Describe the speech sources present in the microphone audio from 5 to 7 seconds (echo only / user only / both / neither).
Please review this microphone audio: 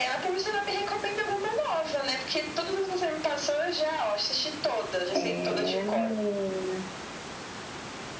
both